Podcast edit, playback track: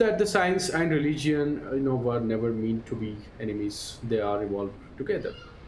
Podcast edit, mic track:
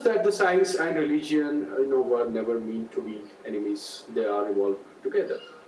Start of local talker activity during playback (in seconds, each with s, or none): none